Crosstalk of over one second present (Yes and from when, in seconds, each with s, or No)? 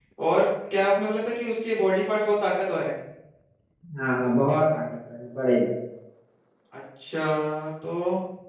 No